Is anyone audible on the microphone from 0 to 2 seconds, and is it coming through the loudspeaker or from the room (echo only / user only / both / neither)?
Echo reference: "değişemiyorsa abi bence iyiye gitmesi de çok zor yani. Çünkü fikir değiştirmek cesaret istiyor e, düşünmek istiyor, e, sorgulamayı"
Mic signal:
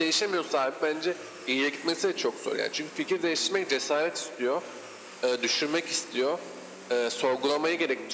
echo only